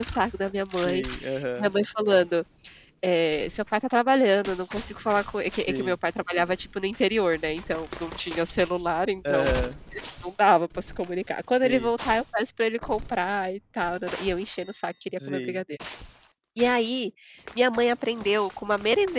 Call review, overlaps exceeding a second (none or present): none